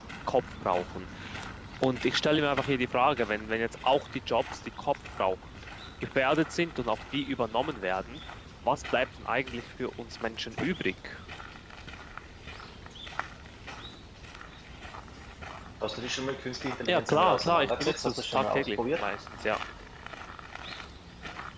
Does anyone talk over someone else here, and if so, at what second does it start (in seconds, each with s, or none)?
16.9 s